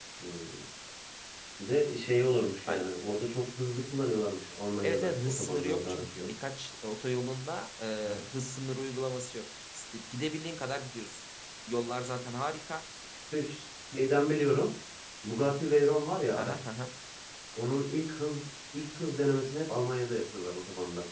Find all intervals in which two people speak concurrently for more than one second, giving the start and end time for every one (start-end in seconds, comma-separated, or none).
4.8-6.3